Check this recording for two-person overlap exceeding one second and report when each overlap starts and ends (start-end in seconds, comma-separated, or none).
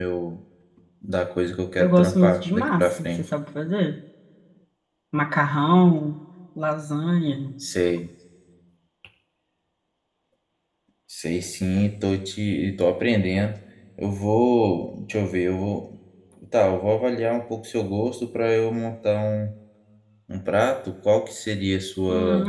1.8-3.2